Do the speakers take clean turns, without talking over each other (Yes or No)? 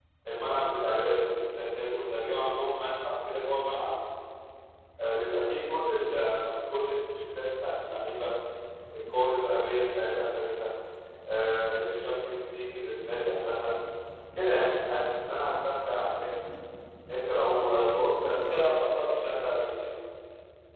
No